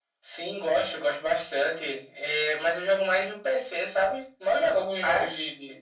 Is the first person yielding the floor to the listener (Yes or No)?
No